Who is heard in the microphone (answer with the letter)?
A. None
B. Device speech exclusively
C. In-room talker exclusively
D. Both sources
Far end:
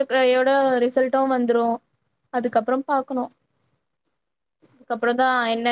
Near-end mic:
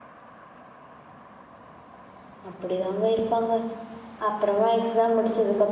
C